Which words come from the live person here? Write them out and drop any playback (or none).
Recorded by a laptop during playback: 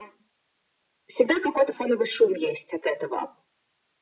none